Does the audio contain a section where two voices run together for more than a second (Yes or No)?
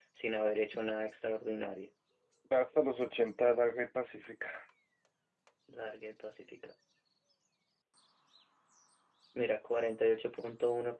No